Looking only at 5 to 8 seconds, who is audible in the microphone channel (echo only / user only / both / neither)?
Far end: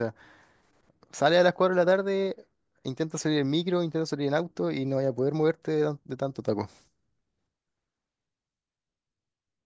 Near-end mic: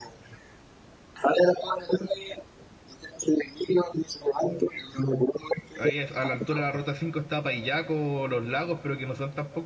both